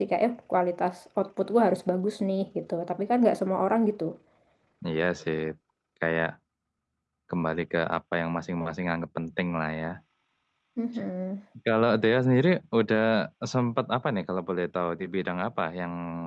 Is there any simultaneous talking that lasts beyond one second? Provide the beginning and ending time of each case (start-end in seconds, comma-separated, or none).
none